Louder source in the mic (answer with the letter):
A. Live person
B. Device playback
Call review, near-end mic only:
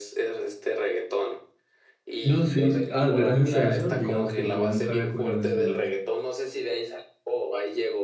A